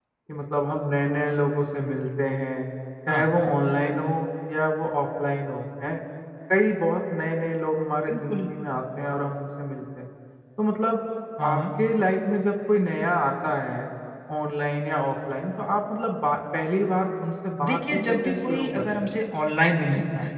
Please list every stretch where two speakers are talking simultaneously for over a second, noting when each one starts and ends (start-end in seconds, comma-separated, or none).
17.6-18.9